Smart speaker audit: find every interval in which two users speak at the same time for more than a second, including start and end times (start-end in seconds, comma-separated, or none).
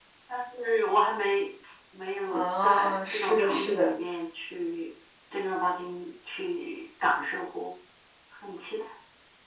2.3-3.9